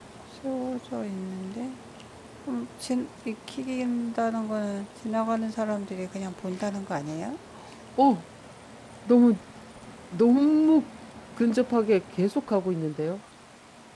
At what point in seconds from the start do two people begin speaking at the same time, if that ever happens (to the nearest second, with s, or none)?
none